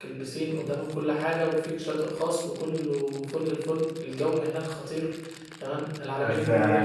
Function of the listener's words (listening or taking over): listening